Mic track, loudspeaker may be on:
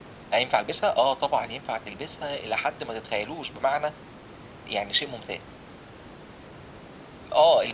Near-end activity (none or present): none